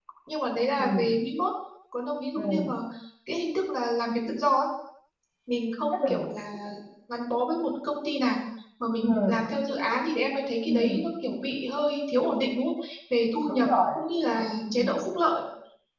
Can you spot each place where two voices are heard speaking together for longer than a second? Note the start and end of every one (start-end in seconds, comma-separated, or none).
none